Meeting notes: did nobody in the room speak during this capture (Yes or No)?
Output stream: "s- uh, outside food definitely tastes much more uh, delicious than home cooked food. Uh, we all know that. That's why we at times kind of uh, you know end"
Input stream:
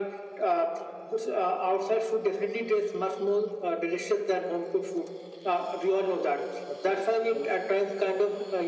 No